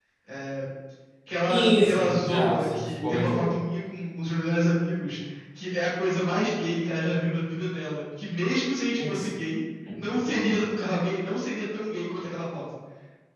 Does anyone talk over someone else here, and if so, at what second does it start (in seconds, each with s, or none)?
1.5 s